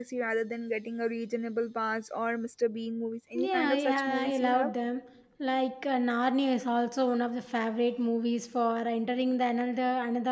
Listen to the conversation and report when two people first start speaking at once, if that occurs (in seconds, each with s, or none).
3.4 s